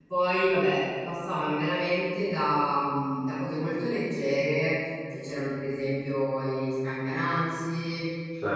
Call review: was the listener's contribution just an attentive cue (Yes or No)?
Yes